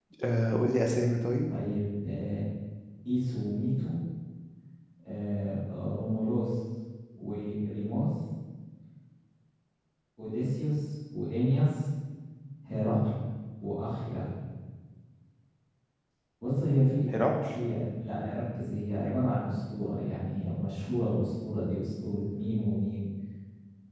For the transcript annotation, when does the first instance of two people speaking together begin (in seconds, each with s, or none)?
none